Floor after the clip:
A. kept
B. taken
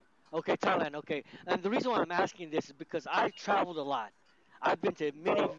A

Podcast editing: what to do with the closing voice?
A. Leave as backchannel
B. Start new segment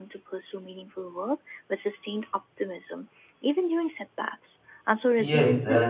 B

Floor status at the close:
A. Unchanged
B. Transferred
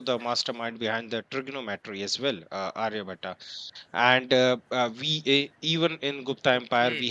A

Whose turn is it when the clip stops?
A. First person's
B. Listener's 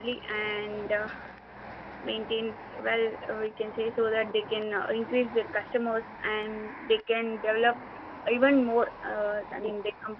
A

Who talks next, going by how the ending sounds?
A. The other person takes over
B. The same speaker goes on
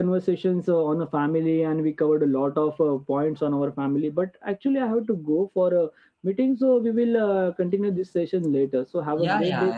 A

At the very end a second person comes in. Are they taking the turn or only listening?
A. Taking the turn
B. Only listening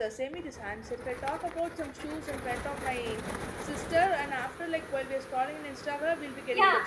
A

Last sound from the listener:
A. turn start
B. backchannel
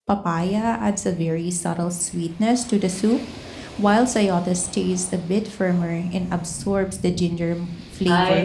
A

